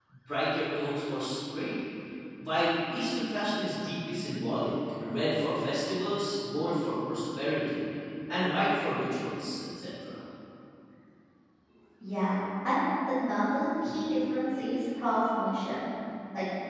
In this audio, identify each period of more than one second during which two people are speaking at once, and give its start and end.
none

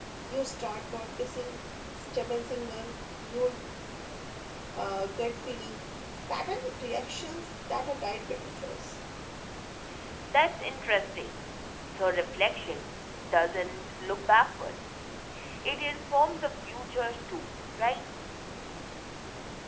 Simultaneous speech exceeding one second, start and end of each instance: none

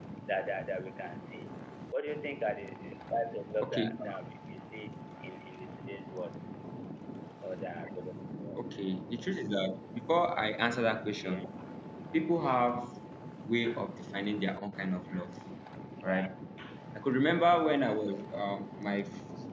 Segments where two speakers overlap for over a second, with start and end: none

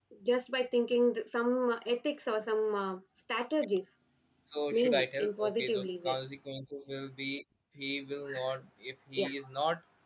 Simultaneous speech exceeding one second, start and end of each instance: 4.7-6.2

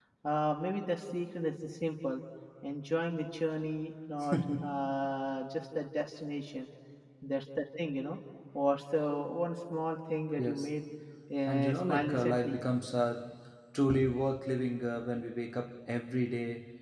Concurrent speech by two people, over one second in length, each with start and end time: 11.5-12.7

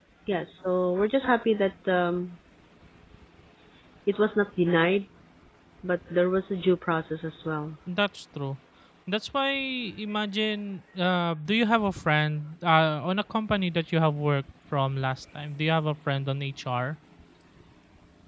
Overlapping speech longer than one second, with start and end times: none

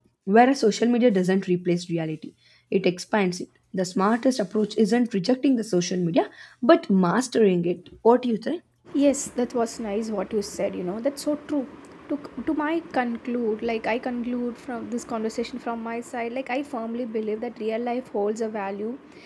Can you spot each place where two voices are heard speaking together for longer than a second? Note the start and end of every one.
none

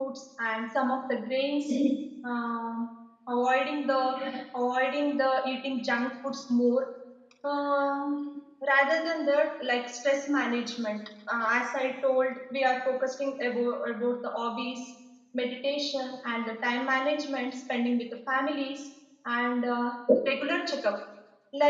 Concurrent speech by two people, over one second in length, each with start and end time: none

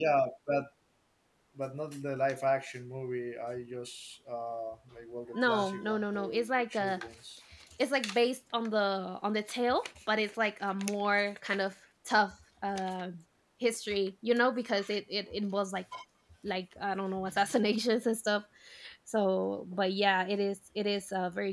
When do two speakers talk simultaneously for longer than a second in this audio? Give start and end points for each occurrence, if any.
5.3-7.0

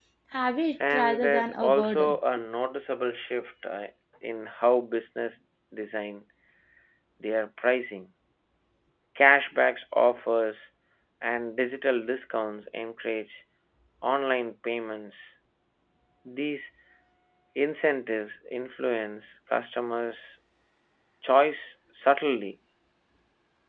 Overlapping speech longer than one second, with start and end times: 0.9-2.2

